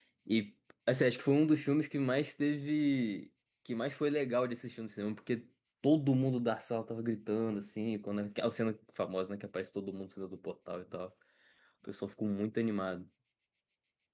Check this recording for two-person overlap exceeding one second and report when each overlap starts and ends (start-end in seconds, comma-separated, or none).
none